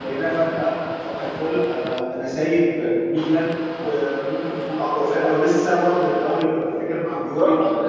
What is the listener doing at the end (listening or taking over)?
listening